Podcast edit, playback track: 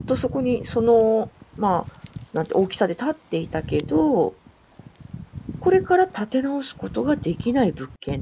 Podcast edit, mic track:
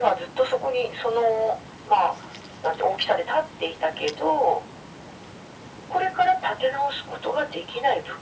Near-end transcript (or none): none